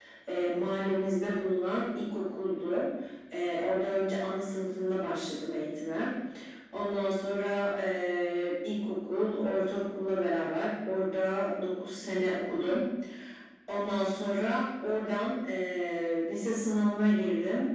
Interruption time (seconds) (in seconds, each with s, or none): none